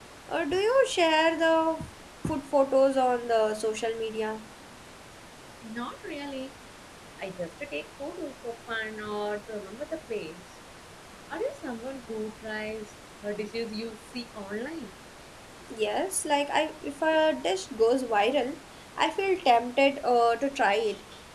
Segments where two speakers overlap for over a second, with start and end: none

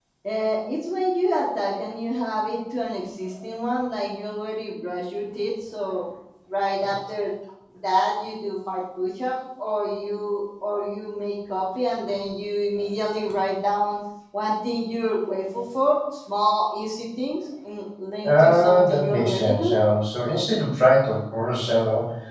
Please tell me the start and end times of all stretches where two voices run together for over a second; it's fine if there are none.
18.4-19.8

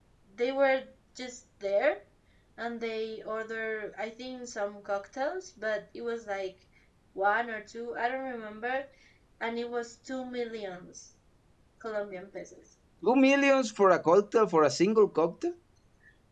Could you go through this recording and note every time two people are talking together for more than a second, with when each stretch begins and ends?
none

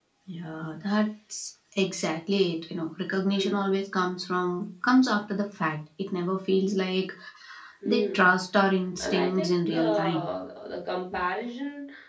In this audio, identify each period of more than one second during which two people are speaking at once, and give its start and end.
9.0-10.2

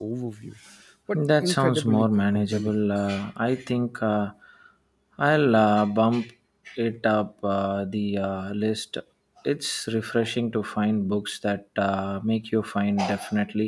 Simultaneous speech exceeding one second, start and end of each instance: 1.1-2.8

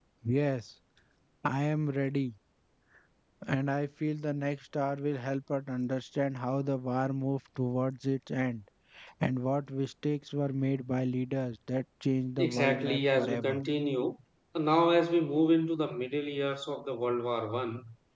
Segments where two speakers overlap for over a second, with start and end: 12.4-13.6

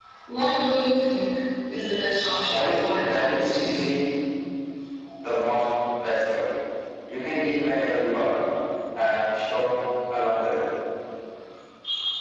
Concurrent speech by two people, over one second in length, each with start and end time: 2.5-3.8

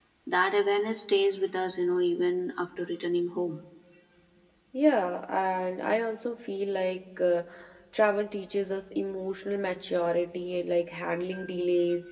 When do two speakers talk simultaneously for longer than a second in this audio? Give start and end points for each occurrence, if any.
none

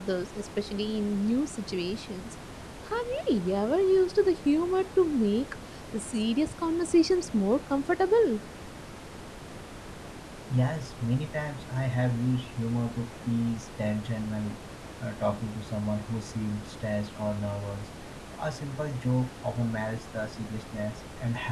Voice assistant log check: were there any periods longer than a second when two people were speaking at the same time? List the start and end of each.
none

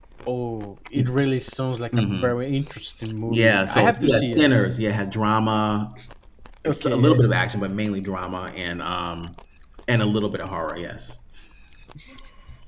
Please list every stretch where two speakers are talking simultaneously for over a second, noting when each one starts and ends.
3.3-4.5

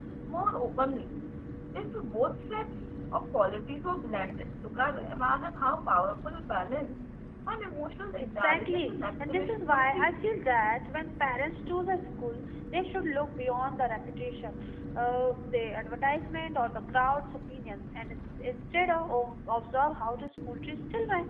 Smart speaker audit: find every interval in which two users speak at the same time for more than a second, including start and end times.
8.2-10.1

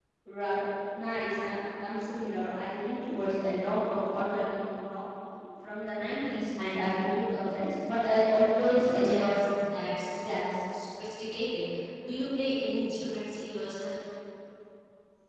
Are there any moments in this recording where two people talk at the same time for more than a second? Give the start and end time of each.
none

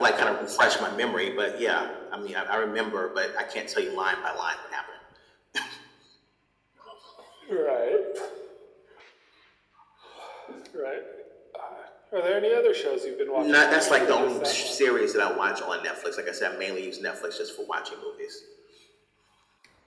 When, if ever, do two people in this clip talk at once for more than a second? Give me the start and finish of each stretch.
13.3-14.8

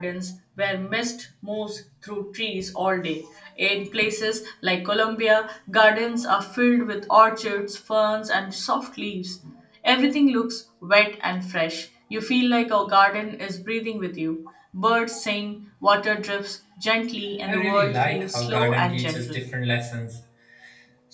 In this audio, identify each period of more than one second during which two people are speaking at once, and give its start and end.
17.5-19.4

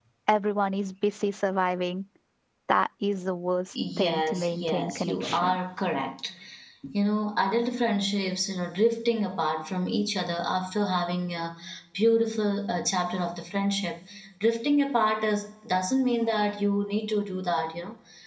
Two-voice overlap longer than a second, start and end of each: 4.0-5.6

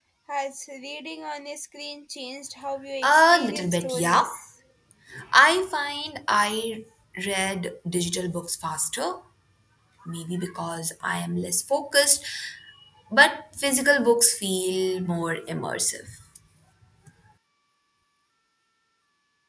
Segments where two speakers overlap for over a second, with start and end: 3.0-4.3

